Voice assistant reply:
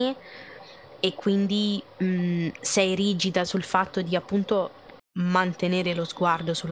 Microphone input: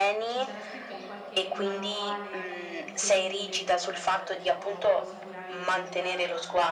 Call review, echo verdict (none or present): present